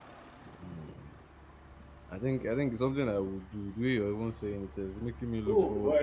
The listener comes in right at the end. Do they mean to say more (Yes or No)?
Yes